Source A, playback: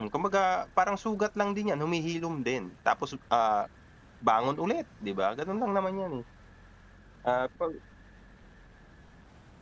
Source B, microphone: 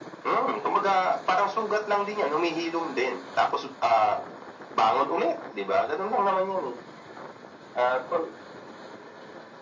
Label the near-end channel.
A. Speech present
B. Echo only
B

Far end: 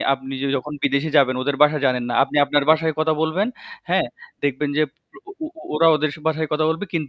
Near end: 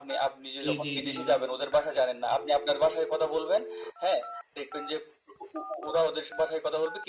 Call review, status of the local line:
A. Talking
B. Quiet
A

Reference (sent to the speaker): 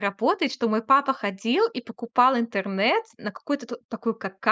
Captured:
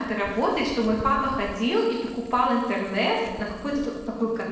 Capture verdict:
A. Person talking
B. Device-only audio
B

